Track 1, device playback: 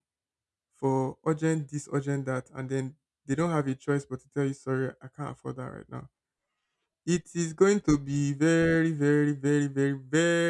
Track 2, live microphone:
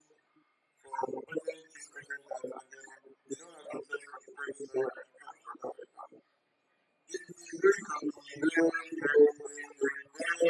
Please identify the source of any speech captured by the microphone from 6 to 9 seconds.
echo only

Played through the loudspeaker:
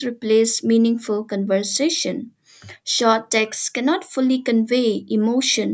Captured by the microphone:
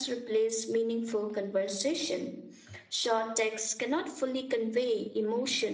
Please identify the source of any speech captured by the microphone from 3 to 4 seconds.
echo only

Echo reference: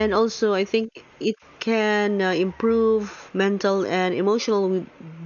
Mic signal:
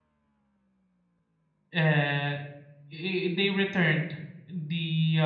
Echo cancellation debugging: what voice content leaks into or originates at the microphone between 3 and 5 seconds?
user only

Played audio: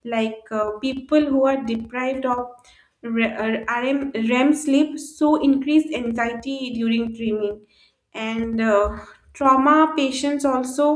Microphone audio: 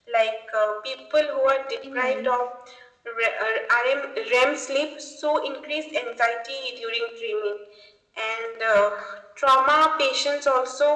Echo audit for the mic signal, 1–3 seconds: both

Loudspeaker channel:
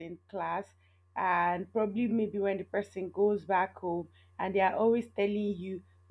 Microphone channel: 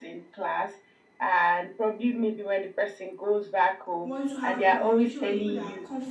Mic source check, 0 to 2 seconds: echo only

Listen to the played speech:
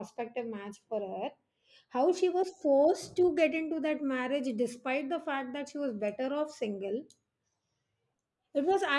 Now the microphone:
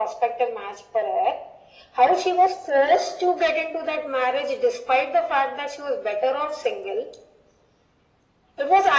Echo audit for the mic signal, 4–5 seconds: echo only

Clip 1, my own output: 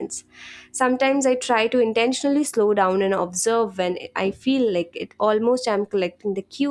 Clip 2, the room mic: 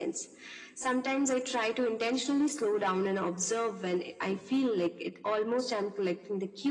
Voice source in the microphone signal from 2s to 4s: echo only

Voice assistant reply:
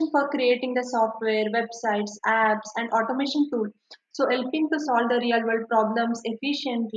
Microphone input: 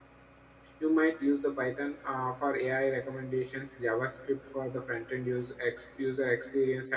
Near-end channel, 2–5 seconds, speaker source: user only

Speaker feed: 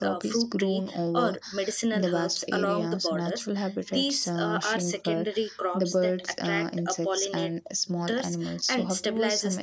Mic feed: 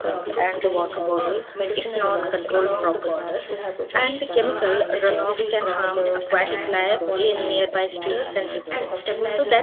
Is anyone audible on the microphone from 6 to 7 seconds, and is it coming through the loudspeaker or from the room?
both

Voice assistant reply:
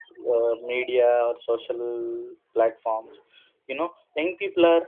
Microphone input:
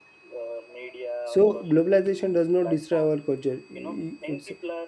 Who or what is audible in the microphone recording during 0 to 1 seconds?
echo only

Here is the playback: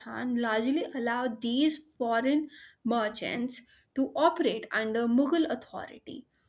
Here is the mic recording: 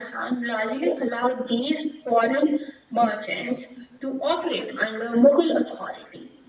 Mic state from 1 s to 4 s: echo only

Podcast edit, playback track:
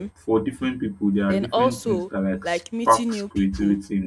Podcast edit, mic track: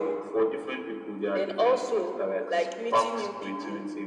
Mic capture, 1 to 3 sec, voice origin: echo only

